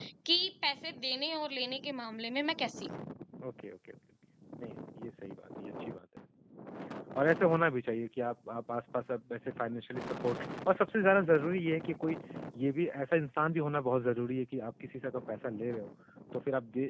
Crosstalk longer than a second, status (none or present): none